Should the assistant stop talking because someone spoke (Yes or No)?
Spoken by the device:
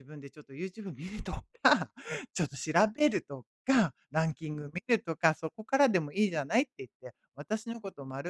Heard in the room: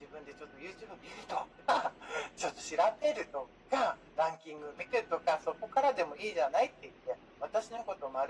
No